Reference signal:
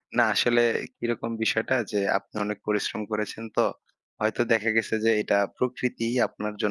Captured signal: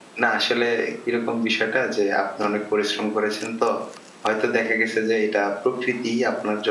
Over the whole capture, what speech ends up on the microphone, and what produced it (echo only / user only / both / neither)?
echo only